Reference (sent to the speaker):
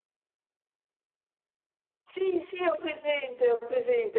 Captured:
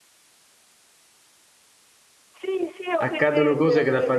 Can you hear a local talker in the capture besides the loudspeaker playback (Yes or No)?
Yes